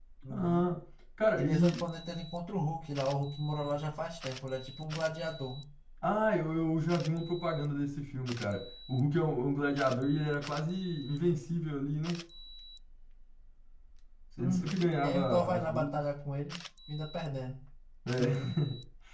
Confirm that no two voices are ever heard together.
No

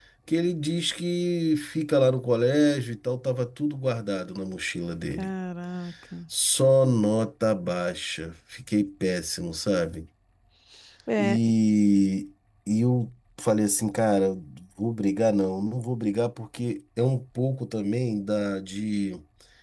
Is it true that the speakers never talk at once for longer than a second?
Yes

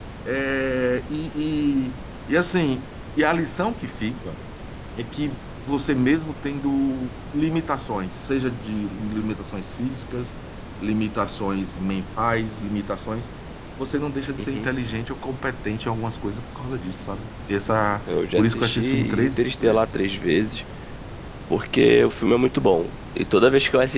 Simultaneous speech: Yes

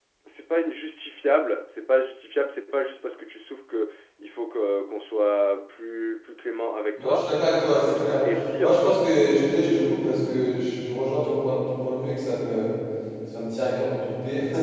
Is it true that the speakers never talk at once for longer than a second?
Yes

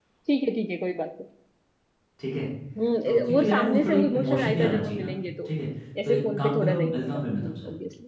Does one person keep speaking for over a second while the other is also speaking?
Yes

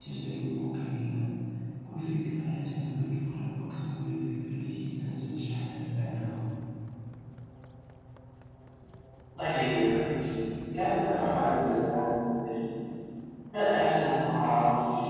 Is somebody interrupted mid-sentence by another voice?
No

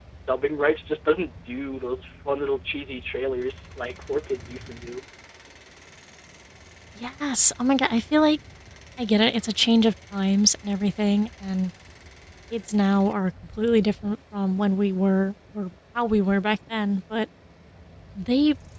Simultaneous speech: No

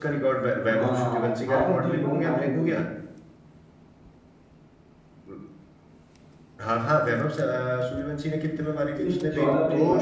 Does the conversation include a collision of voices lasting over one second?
Yes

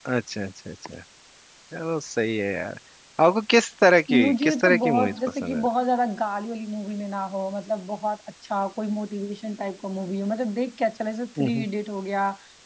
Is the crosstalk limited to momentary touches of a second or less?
No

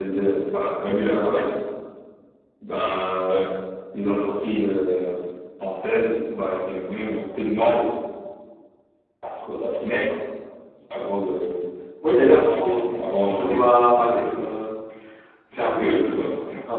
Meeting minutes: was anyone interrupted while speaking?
Yes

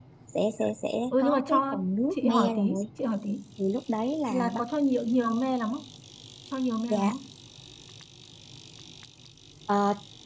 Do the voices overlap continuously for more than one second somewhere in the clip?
Yes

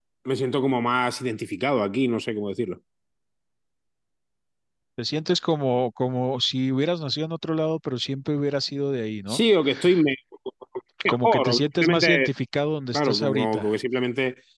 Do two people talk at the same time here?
Yes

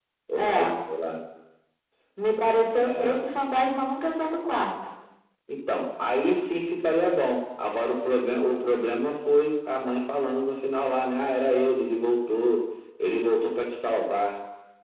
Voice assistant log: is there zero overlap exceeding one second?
Yes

